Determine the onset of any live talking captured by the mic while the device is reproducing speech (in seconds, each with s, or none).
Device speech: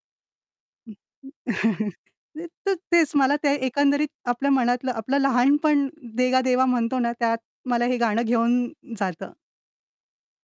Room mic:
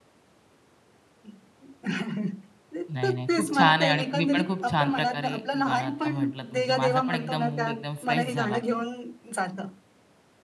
2.9 s